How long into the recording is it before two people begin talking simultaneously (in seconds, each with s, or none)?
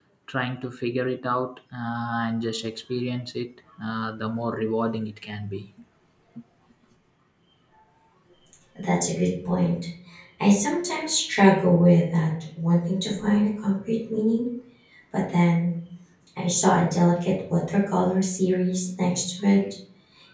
none